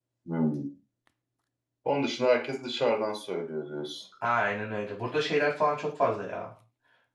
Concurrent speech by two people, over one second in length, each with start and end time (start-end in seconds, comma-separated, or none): none